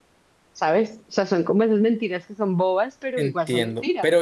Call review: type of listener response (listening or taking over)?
taking over